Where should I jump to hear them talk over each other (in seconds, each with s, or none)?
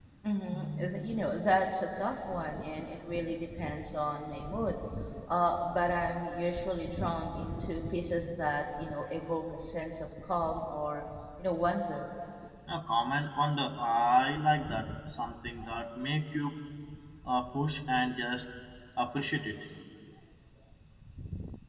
none